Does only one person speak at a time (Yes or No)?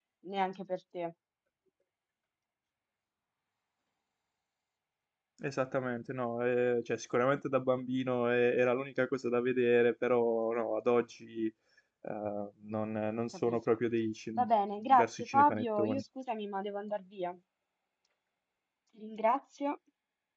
No